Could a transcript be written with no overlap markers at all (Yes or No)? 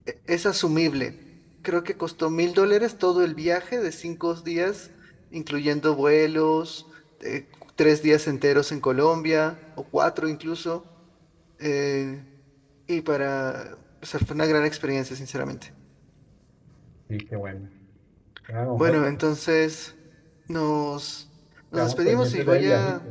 No